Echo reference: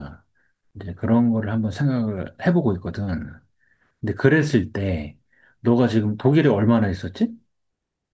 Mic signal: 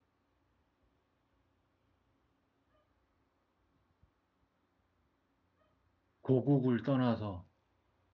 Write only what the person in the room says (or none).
고국을 떠나서.